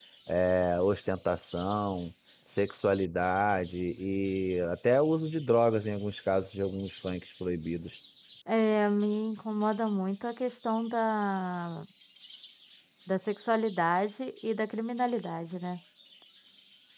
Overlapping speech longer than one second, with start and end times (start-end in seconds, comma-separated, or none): none